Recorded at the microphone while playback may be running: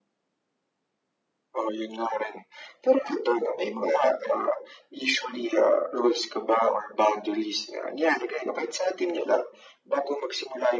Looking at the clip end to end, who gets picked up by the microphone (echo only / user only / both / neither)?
echo only